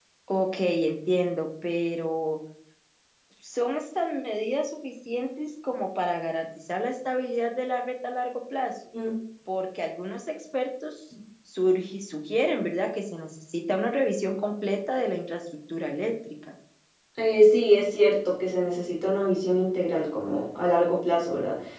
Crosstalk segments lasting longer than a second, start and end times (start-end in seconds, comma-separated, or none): none